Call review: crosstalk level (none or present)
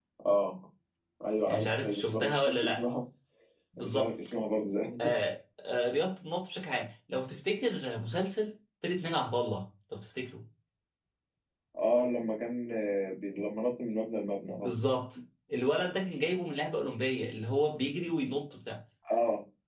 present